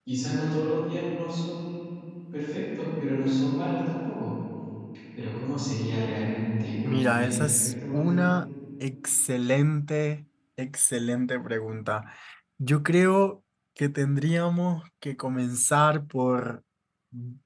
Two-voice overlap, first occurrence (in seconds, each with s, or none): 6.8 s